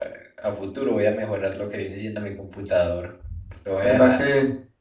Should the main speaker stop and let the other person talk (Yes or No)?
Yes